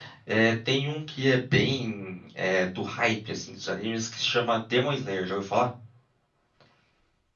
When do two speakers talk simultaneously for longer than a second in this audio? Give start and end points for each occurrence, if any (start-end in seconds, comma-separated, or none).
none